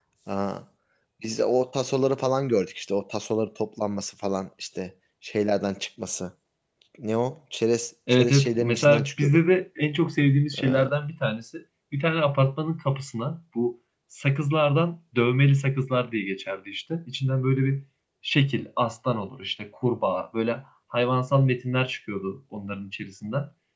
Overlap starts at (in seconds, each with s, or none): 8.1 s